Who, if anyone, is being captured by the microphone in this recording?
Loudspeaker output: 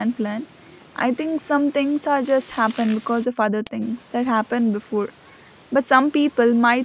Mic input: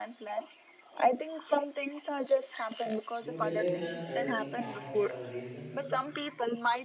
both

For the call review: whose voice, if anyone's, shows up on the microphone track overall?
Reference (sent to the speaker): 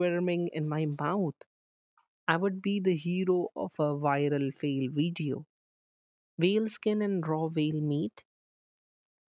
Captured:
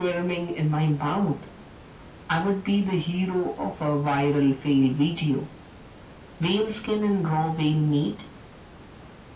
echo only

